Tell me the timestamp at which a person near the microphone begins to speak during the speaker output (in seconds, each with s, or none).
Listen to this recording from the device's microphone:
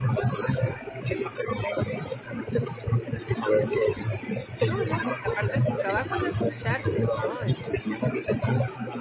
4.7 s